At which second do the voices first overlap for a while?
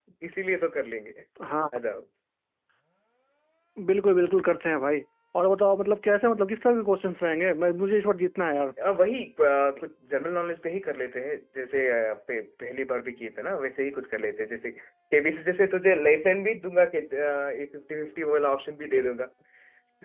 none

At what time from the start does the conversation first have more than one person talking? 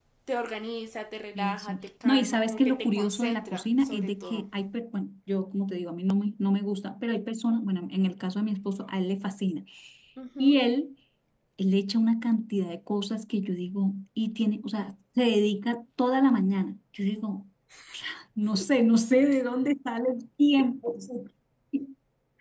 1.4 s

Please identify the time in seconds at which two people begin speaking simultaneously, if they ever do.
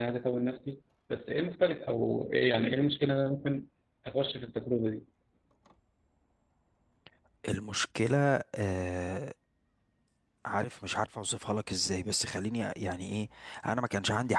none

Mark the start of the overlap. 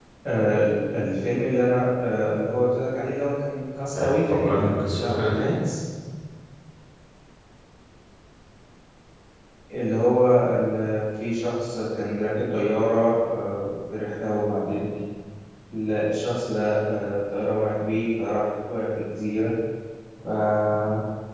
4.0 s

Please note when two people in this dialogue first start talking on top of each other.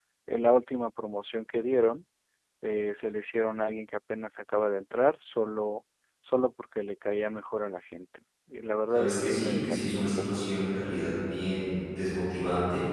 8.9 s

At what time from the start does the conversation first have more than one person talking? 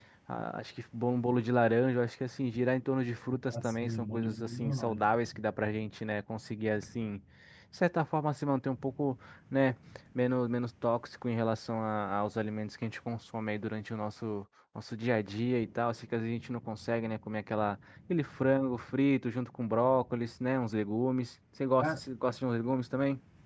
3.5 s

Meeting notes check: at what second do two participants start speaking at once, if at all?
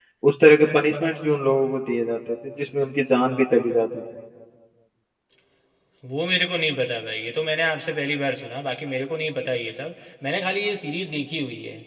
none

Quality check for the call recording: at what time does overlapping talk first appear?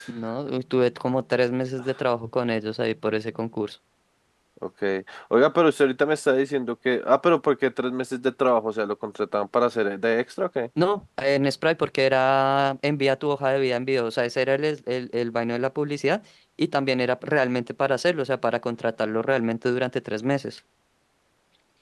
none

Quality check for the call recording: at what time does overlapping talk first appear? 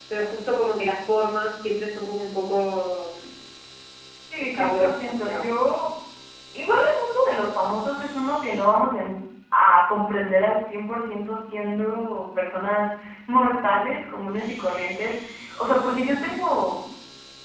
4.4 s

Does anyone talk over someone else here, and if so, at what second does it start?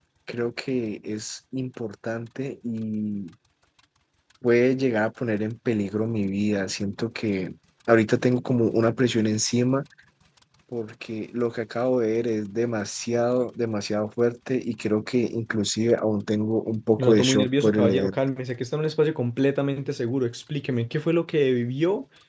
17.0 s

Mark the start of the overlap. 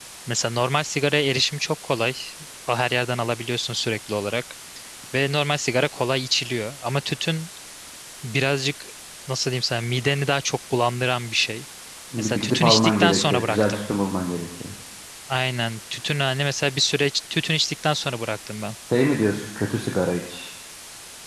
12.2 s

